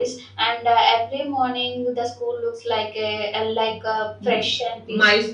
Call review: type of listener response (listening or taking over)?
taking over